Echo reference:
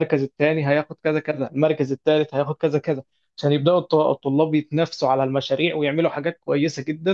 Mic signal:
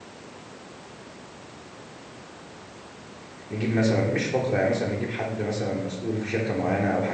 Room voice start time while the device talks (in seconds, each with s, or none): 3.5 s